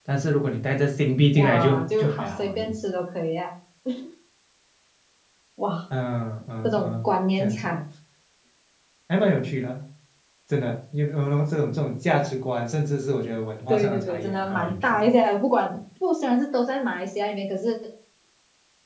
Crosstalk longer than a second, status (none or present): present